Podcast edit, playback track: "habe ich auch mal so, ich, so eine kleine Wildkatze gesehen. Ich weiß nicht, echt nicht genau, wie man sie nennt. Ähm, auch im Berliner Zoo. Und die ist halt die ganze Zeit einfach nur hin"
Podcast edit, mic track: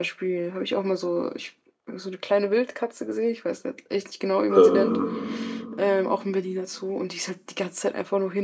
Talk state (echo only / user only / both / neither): both